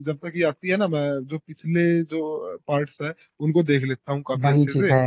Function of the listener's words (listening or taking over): taking over